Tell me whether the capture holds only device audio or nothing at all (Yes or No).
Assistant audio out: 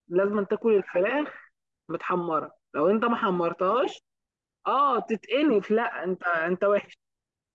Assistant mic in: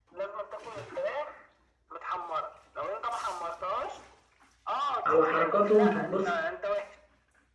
No